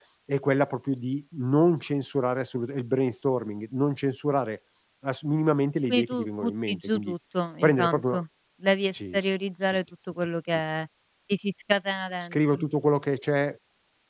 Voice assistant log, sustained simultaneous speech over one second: present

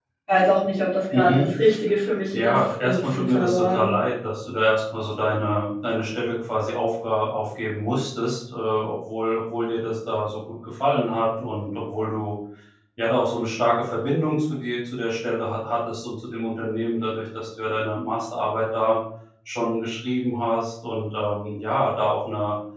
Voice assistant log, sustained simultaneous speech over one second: present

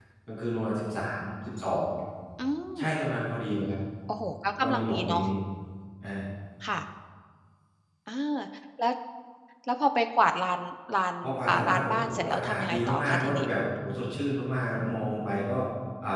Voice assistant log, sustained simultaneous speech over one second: present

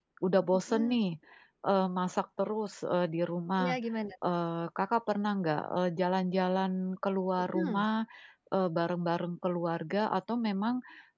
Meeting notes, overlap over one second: none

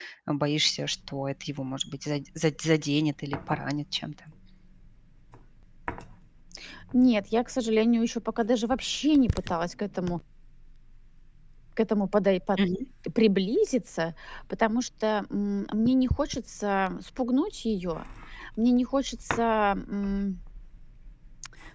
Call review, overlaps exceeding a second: none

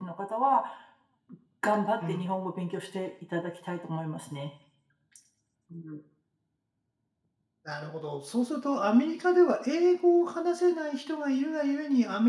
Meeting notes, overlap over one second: none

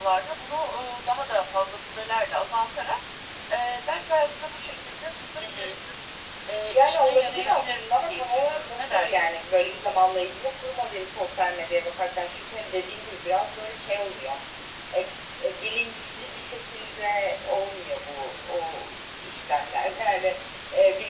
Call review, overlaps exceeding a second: present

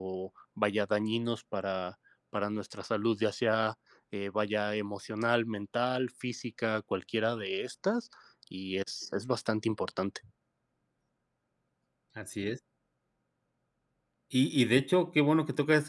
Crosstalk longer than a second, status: none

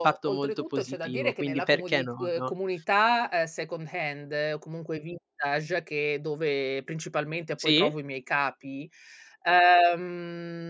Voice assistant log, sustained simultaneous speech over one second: present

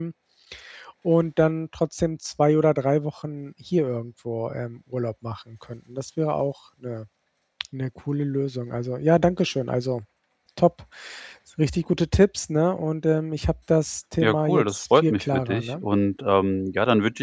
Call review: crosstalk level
present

